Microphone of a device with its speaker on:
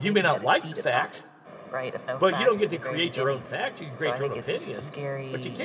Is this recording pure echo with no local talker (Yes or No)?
No